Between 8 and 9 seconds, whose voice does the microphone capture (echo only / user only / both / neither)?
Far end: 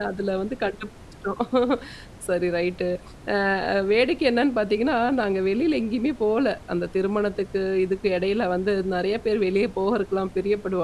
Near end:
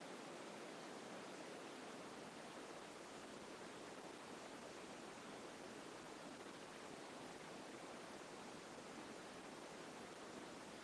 neither